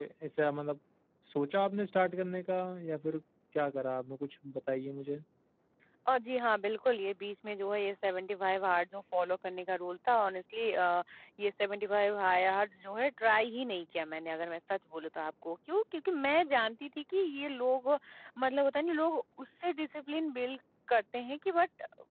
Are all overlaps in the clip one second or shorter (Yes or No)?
Yes